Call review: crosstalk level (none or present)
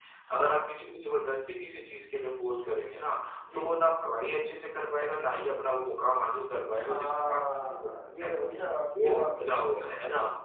present